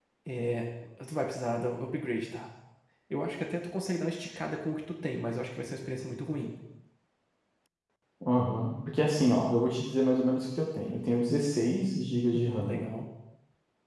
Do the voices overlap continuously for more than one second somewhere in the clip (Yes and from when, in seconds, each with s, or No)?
No